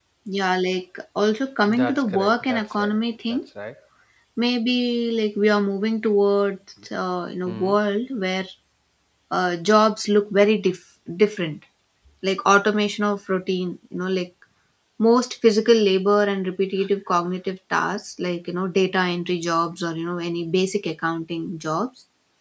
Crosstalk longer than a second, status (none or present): present